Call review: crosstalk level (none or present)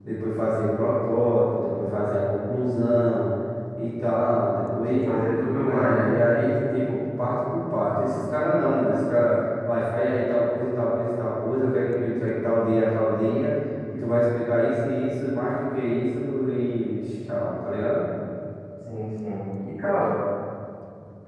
present